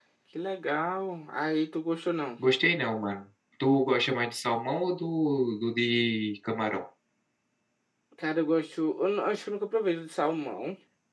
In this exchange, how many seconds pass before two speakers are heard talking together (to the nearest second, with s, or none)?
none